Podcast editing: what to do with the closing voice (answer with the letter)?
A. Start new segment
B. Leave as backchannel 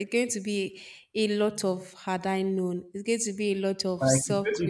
A